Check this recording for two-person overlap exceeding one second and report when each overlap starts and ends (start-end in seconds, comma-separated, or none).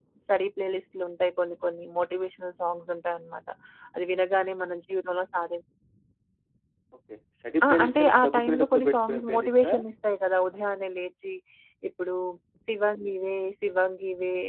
7.7-9.7